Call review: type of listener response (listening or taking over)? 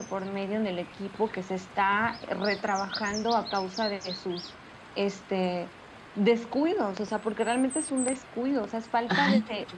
taking over